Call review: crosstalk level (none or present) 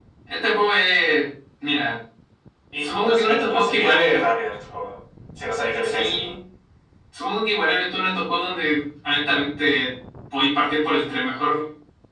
present